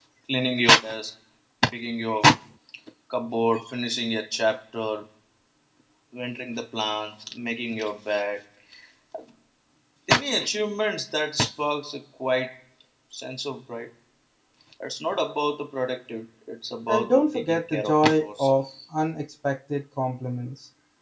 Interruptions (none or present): present